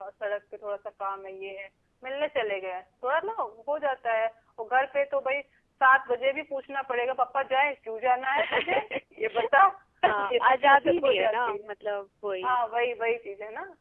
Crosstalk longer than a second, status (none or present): present